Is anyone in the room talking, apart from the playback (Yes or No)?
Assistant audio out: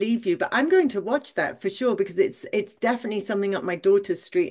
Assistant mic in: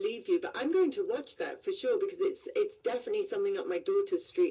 No